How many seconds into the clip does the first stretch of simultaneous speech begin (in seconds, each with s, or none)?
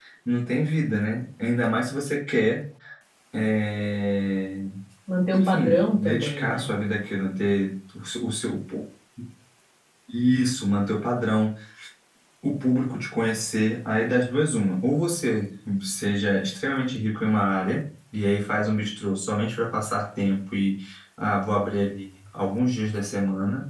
5.3 s